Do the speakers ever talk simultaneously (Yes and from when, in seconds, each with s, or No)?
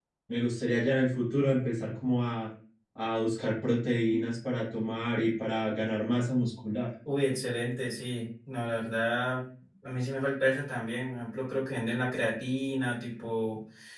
No